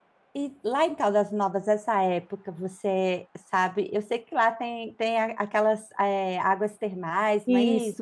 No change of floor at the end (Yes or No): No